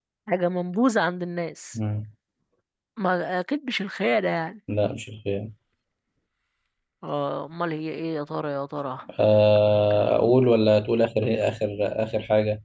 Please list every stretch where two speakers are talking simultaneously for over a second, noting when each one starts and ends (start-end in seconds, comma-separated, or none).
none